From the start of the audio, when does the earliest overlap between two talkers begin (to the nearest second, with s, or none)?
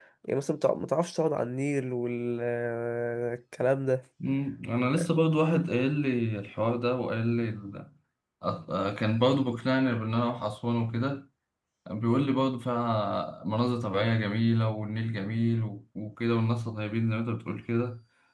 none